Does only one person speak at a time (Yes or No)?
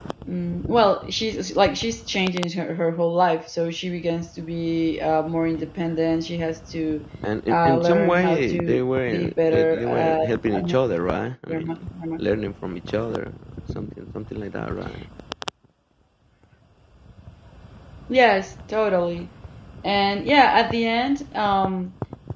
No